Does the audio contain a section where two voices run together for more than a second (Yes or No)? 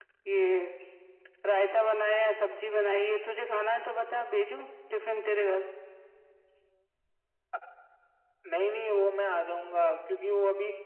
No